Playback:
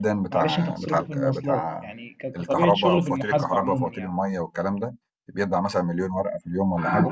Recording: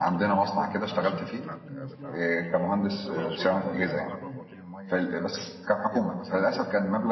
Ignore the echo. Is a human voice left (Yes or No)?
Yes